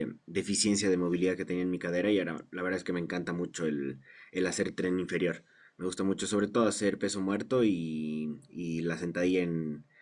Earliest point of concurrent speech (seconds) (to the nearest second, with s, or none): none